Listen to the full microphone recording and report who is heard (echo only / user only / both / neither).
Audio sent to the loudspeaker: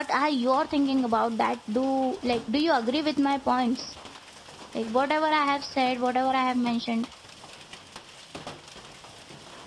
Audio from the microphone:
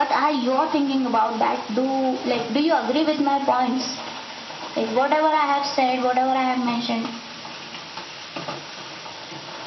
echo only